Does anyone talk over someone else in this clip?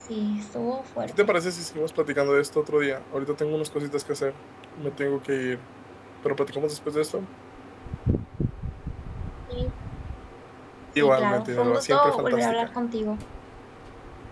Yes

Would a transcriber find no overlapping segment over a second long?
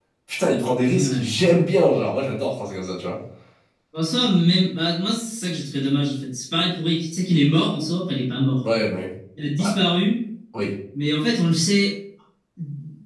Yes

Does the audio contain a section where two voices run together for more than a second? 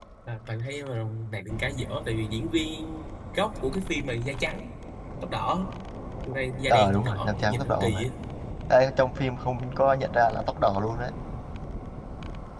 Yes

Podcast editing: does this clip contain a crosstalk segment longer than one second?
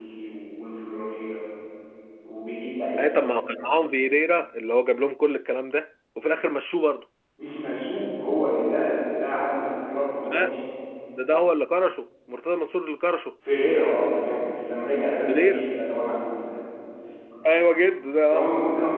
No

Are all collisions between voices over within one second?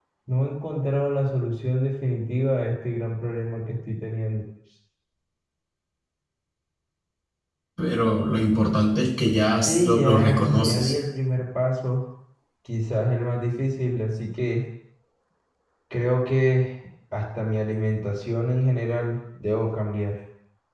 No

